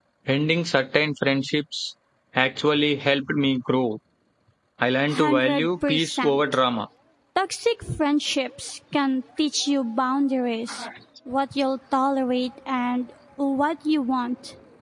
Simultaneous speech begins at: 5.1 s

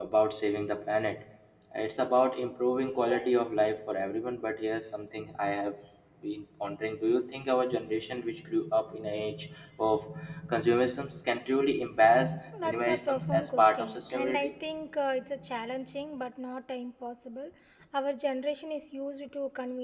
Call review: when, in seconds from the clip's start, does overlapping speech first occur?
12.5 s

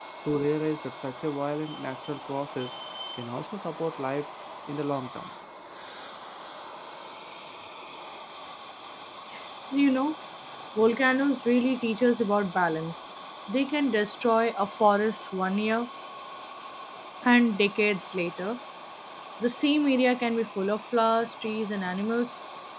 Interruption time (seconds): none

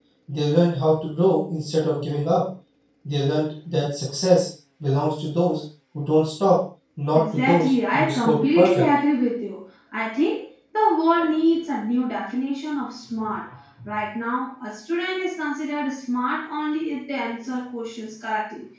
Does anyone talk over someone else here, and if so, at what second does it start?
7.1 s

